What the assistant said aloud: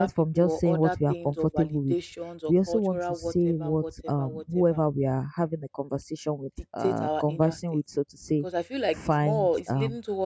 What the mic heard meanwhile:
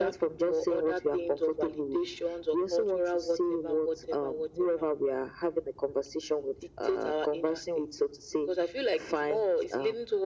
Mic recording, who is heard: echo only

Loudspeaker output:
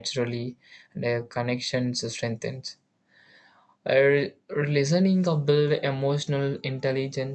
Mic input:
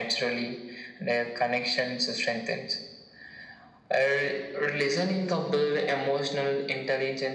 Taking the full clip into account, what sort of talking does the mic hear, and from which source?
echo only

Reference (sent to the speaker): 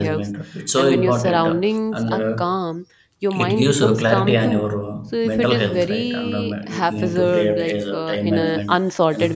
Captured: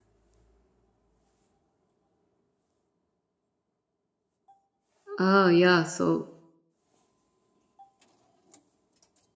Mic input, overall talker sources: user only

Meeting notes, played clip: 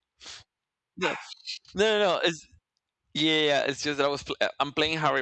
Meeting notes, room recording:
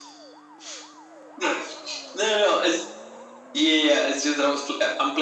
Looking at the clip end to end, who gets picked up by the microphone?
echo only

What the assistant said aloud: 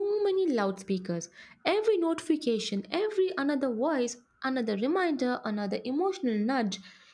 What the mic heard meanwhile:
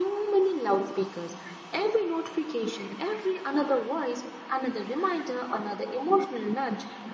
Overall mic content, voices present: echo only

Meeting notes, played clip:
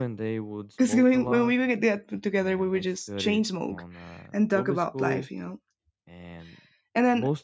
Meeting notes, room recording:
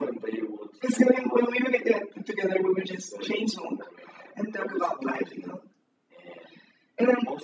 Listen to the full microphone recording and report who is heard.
echo only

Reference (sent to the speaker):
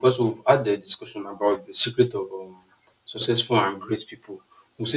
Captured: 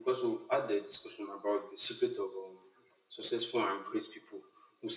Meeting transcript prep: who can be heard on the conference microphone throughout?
echo only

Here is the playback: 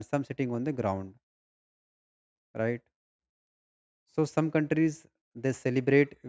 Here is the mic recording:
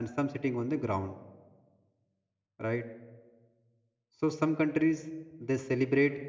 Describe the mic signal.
echo only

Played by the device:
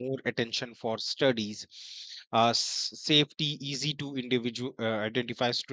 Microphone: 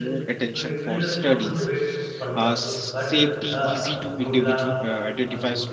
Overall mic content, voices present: both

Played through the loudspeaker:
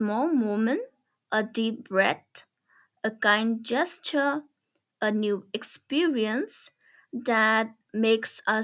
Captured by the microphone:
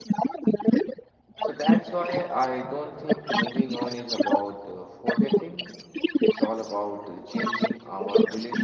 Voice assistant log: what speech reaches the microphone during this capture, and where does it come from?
both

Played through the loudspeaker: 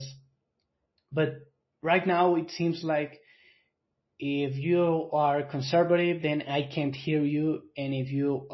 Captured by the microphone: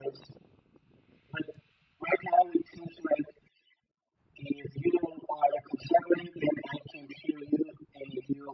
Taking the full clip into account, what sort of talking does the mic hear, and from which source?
echo only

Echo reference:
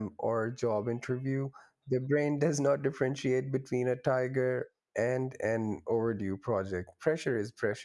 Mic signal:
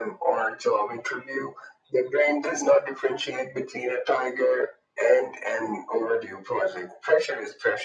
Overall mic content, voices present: echo only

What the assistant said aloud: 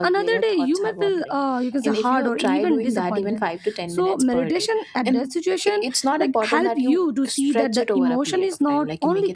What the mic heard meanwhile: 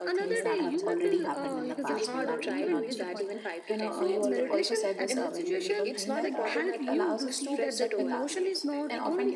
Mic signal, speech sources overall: both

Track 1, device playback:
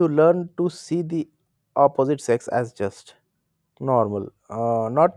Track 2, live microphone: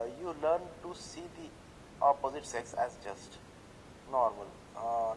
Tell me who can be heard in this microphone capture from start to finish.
echo only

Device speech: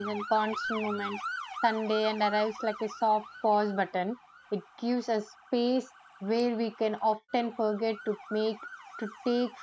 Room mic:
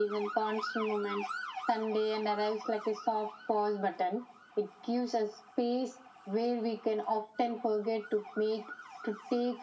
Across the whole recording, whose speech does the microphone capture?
echo only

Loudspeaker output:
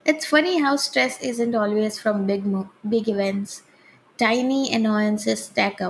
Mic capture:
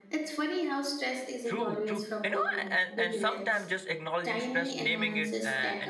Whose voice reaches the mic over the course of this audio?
both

